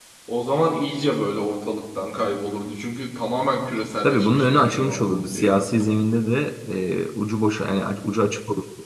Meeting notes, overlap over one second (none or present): present